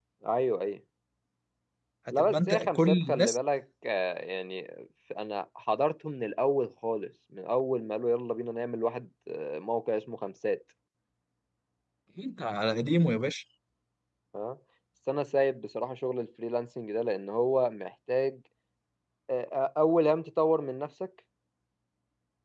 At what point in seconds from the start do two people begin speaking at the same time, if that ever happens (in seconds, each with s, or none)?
2.1 s